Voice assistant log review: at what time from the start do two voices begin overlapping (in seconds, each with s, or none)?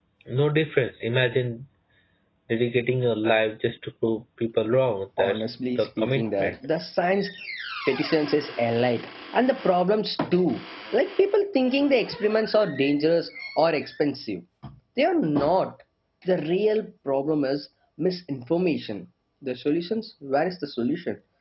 5.2 s